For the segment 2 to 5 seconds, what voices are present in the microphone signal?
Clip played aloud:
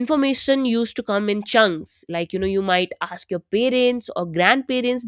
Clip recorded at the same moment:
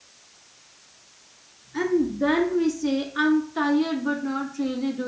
user only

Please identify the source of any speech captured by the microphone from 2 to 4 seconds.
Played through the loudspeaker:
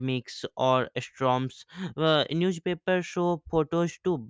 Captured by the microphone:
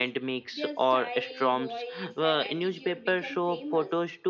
both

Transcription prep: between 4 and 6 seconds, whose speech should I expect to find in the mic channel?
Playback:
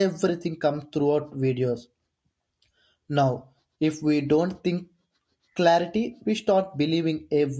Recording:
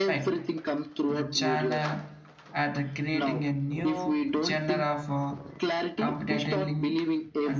both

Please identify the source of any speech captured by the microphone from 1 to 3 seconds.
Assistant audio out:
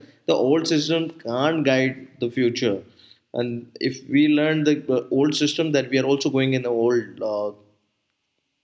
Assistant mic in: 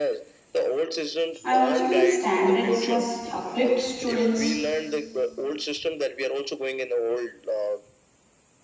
both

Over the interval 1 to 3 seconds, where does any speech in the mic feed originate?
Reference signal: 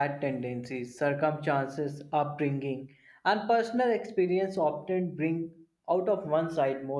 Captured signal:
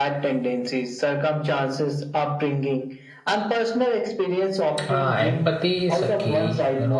echo only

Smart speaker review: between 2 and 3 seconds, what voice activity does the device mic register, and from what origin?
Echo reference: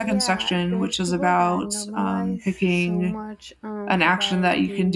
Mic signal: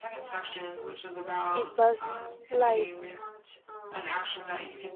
both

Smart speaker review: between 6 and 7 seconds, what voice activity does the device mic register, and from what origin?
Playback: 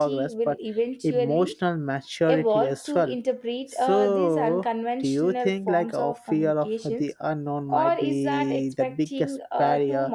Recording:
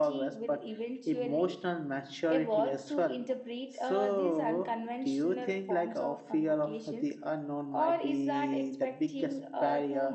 echo only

